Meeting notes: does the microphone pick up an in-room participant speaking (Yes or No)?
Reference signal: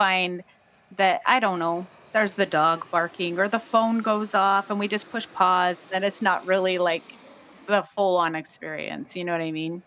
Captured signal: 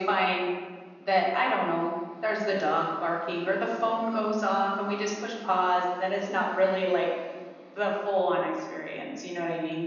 No